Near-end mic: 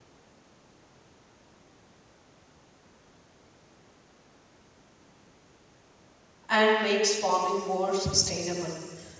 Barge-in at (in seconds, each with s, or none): 6.5 s